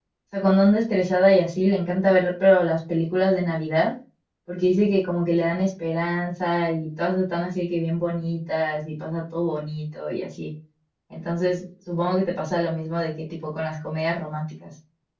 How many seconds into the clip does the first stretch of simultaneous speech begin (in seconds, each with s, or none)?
none